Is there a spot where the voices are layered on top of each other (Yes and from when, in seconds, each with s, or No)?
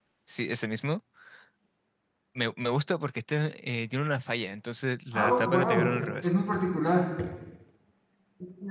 Yes, from 5.1 s